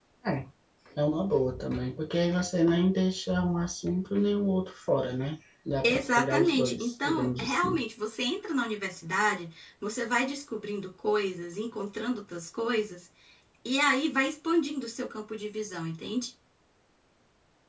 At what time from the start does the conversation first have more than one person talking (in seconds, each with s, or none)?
5.8 s